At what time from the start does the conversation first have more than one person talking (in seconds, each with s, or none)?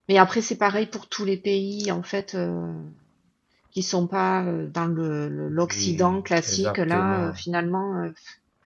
5.6 s